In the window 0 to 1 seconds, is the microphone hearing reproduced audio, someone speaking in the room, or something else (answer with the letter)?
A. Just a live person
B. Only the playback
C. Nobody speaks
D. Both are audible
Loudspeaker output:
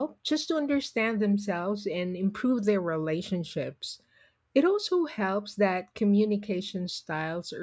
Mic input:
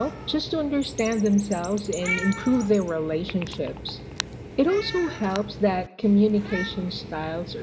B